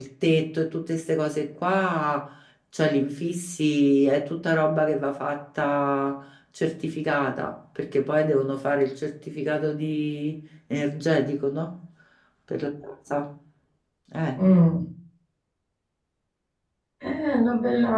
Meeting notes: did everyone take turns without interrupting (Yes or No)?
Yes